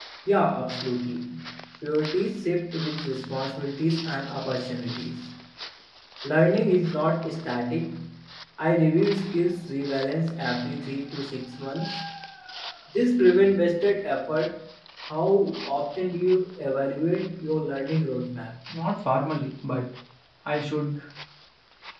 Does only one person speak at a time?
Yes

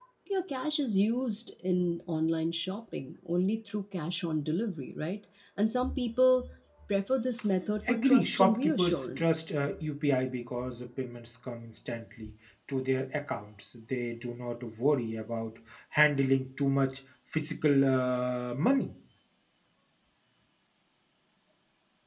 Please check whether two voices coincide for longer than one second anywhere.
Yes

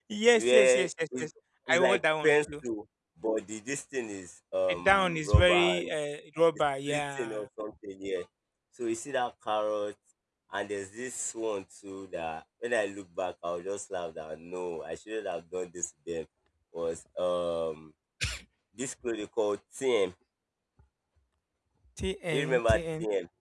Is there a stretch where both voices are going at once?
Yes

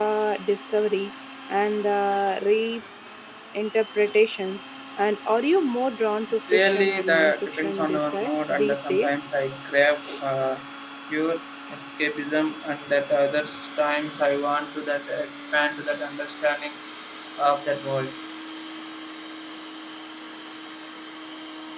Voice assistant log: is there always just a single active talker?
No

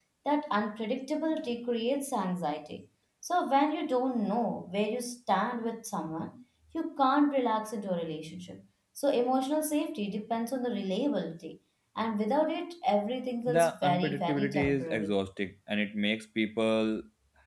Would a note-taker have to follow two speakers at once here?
Yes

